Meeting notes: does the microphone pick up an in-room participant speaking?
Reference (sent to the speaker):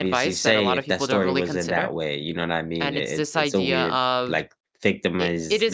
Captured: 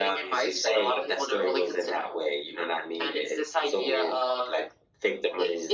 No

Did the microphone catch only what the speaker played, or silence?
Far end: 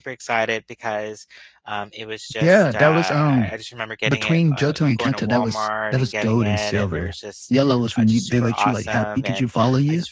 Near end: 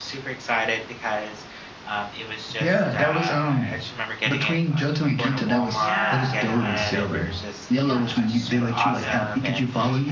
No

